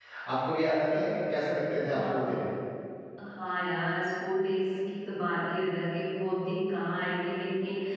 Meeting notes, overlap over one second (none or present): none